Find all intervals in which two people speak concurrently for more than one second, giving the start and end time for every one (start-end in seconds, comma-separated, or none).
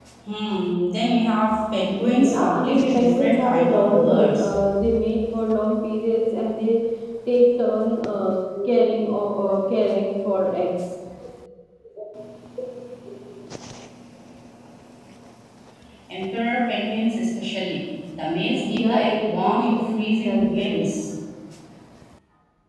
1.9-4.5, 18.4-20.8